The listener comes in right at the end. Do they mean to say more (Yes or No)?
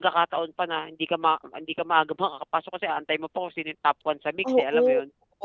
Yes